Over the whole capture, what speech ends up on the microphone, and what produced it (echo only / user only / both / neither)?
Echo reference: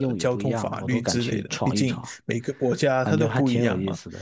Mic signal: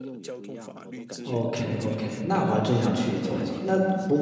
both